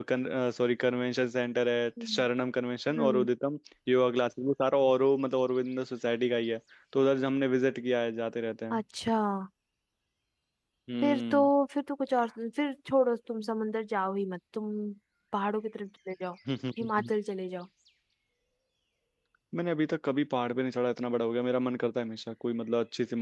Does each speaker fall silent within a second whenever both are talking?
Yes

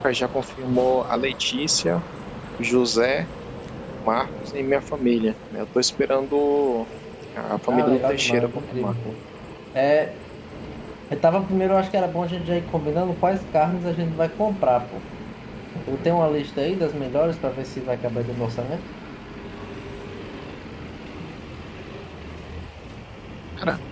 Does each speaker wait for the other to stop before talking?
No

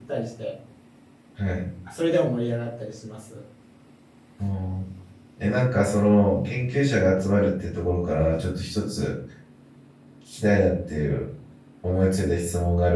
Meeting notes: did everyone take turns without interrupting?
Yes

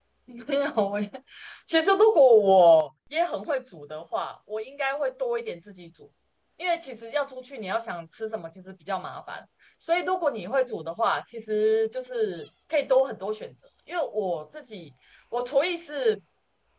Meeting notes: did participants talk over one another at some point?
No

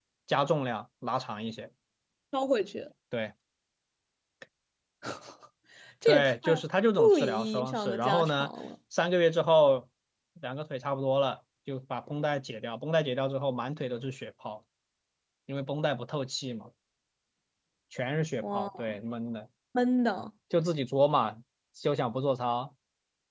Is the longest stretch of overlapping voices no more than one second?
No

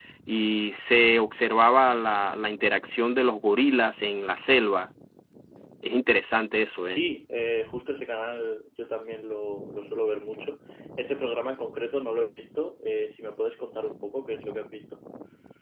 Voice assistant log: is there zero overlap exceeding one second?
Yes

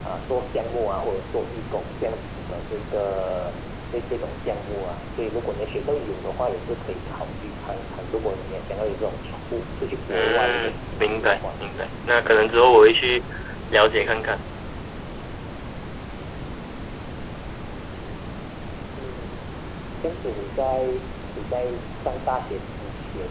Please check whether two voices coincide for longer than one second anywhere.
Yes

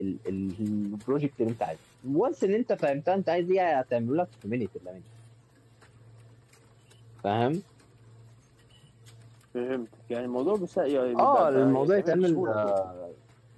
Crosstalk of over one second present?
Yes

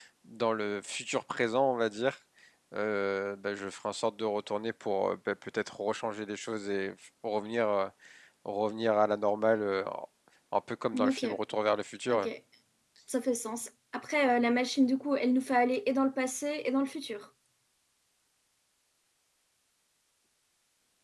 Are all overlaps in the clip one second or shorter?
Yes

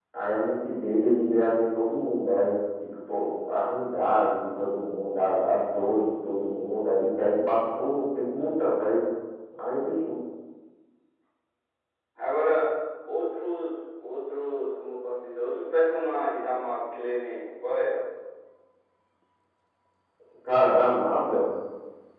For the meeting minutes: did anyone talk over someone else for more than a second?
No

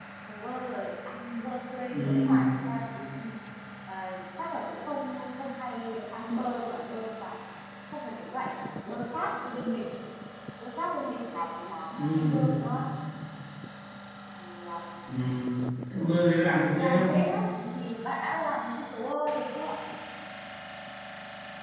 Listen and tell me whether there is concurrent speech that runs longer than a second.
No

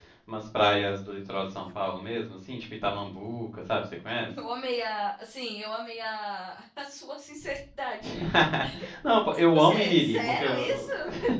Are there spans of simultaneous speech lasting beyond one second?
Yes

